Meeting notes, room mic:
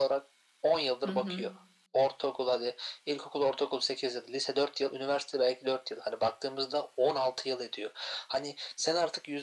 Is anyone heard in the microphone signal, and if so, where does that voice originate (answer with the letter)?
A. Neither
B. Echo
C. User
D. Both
D